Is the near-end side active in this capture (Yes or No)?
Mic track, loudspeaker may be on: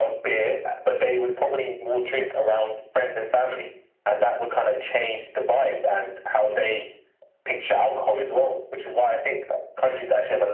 No